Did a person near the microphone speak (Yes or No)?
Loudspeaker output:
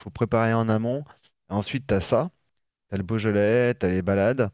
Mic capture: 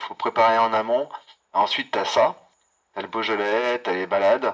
No